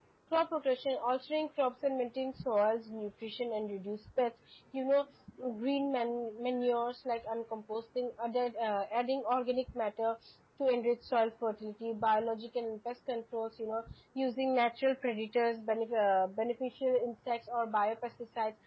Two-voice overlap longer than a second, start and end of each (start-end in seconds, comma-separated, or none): none